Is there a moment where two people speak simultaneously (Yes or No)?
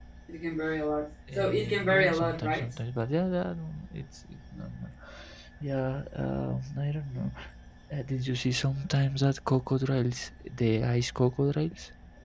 Yes